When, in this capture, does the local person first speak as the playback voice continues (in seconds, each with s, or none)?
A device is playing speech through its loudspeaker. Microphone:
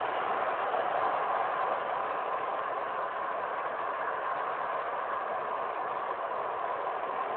none